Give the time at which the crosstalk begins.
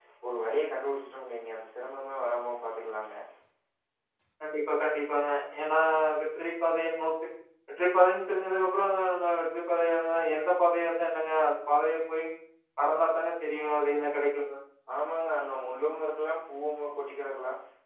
none

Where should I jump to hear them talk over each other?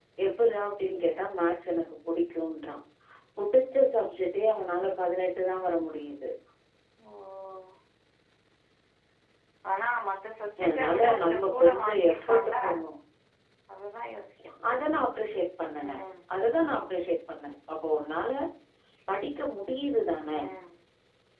10.6 s

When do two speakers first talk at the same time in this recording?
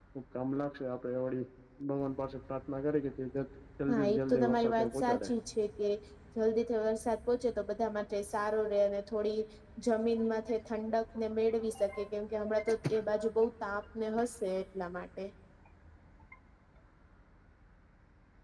3.9 s

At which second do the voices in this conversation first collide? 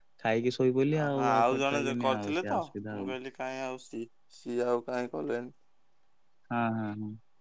1.0 s

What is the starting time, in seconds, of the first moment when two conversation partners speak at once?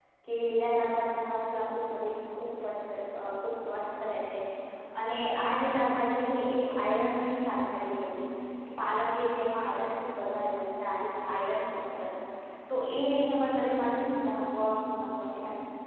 none

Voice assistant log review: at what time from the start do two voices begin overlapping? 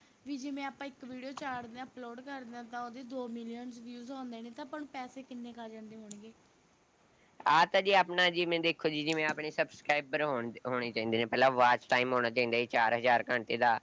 none

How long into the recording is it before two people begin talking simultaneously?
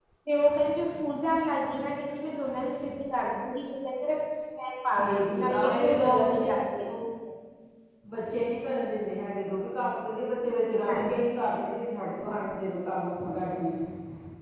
4.9 s

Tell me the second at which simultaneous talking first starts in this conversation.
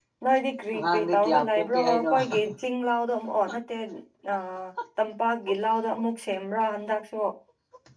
0.7 s

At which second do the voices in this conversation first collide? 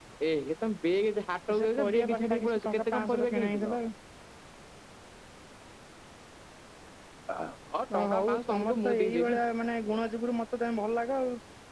1.6 s

